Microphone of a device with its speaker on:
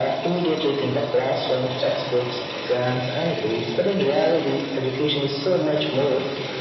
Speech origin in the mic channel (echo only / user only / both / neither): echo only